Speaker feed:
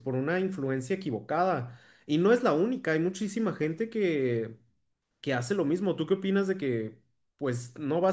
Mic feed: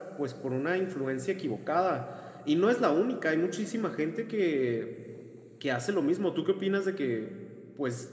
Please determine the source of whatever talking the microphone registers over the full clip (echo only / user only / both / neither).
echo only